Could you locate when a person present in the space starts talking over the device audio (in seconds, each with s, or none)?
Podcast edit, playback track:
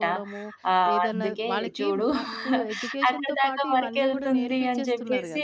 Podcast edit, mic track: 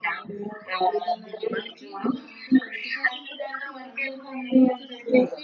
none